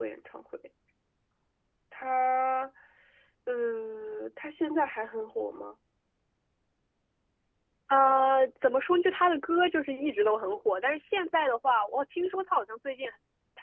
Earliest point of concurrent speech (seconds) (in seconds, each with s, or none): none